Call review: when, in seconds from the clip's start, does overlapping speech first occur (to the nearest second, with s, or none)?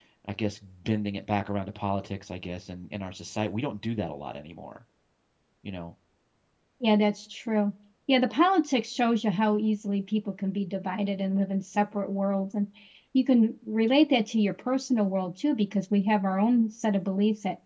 none